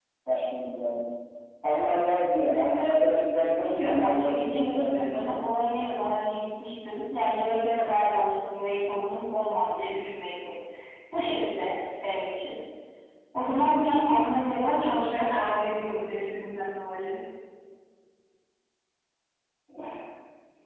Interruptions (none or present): present